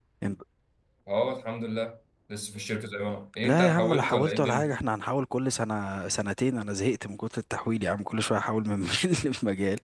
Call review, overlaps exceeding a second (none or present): present